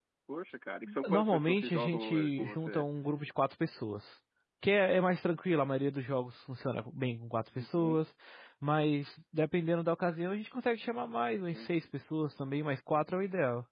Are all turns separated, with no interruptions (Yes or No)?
No